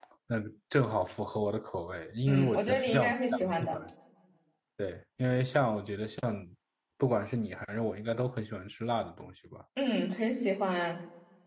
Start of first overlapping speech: 2.3 s

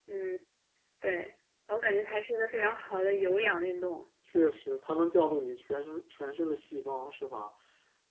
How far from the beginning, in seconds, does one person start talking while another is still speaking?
none

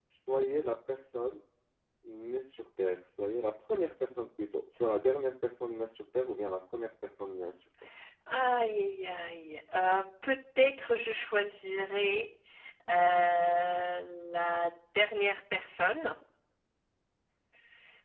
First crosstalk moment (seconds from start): none

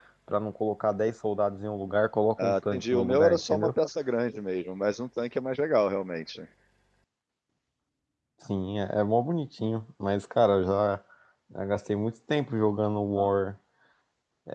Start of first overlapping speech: 2.4 s

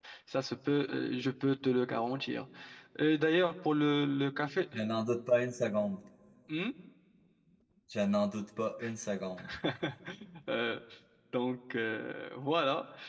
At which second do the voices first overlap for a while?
none

